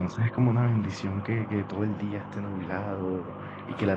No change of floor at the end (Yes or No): Yes